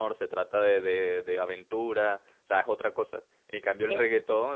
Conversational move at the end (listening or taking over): listening